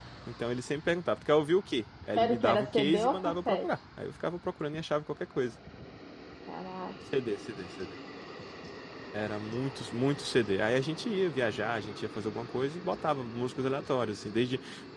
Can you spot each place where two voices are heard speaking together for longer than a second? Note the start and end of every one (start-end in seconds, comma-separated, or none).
2.2-3.7